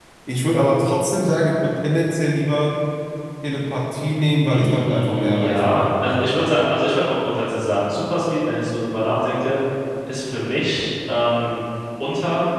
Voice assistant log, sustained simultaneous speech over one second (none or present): present